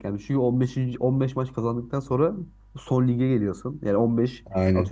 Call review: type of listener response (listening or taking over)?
listening